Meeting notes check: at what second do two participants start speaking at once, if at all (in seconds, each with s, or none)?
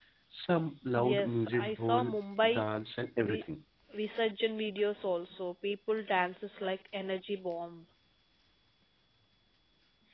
1.0 s